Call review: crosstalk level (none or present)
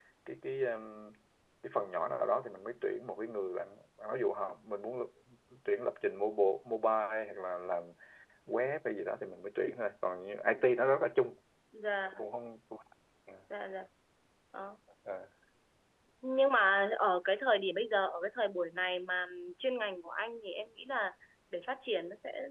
none